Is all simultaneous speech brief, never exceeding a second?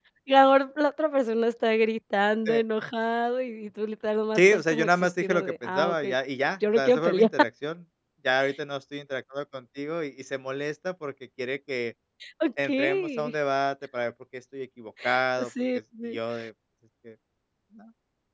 No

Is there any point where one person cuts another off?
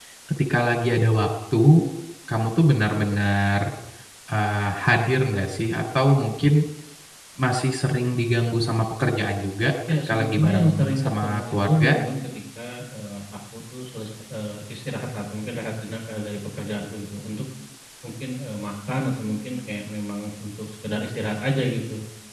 Yes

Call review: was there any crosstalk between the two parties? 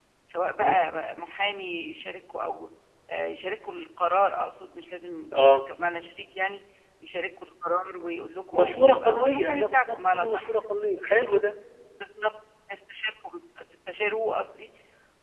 Yes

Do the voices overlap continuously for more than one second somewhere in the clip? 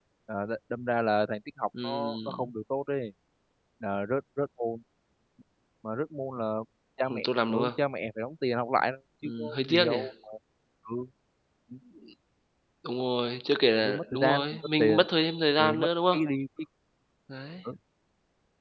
Yes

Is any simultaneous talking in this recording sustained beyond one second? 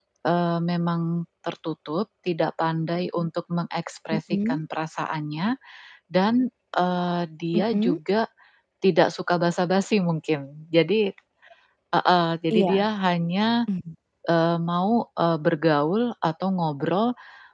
No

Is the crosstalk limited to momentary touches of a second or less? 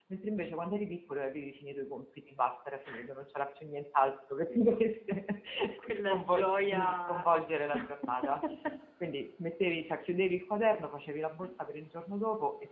No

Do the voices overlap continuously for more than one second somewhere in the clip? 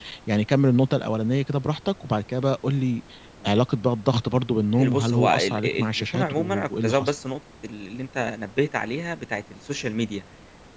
Yes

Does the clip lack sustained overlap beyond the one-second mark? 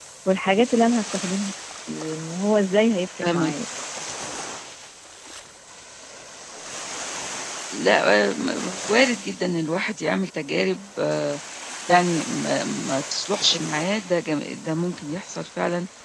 Yes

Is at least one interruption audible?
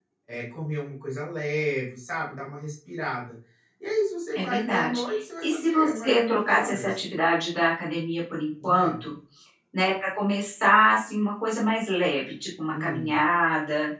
Yes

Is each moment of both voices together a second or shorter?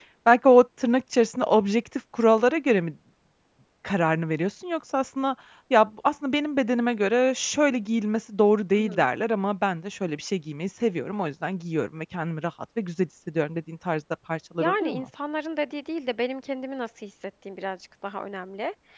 Yes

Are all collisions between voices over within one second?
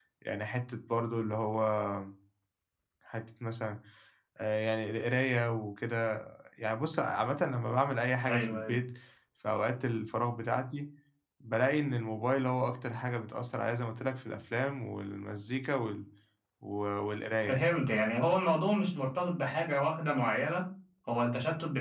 Yes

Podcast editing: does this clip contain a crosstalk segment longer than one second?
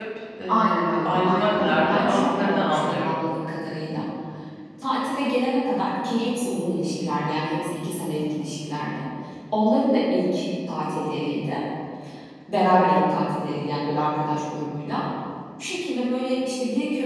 Yes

